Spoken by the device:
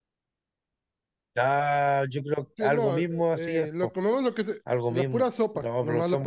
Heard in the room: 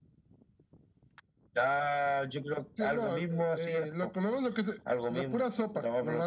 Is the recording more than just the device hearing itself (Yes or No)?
No